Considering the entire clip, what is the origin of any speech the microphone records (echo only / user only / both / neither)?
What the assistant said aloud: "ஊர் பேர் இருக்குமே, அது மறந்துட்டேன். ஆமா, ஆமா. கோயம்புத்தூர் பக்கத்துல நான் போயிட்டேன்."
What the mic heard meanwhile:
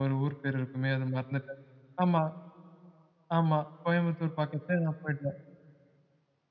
echo only